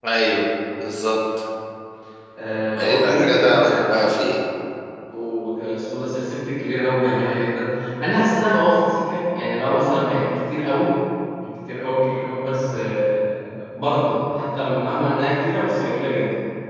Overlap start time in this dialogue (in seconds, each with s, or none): 2.8 s